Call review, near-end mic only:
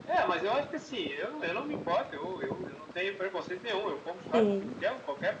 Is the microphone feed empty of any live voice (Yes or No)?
No